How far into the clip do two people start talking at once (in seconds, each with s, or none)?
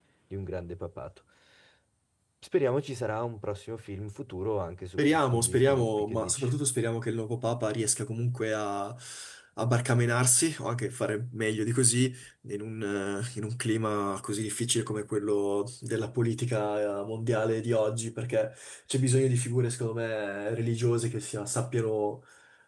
5.0 s